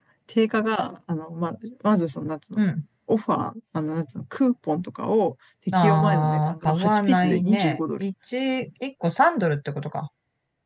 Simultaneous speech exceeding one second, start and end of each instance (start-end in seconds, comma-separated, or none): 5.7-8.0